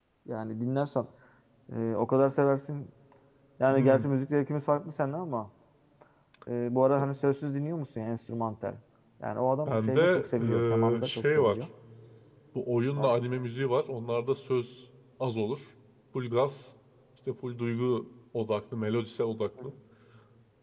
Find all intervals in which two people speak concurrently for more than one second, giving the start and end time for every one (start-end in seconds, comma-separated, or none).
9.7-11.6